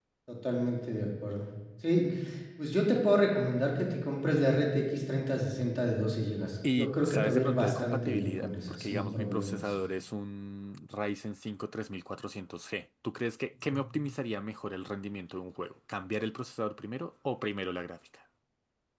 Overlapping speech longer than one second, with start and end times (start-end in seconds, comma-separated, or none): 6.7-9.6